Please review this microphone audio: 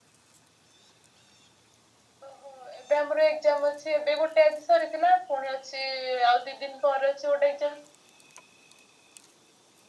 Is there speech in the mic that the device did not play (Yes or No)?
No